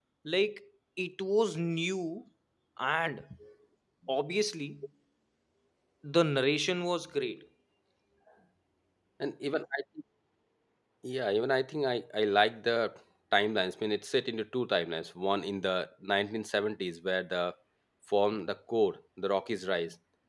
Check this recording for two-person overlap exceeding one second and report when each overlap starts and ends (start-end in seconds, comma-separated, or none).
none